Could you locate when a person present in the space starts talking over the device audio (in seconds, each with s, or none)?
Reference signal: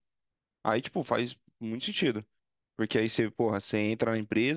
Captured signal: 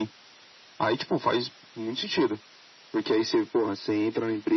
none